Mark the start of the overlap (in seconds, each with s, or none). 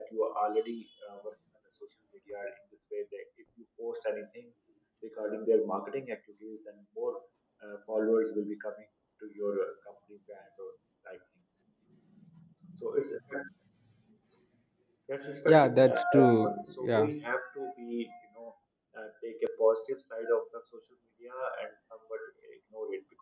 15.5 s